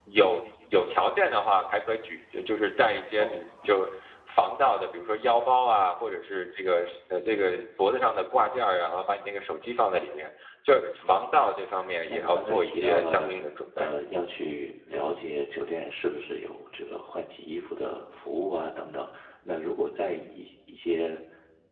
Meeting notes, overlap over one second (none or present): present